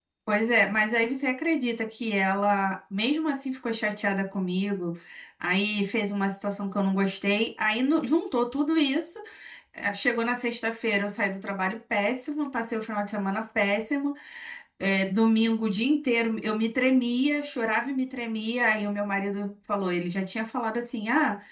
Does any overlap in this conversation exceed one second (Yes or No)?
No